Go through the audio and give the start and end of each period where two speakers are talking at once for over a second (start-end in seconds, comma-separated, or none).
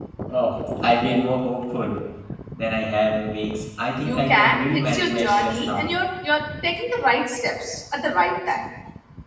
4.0-5.9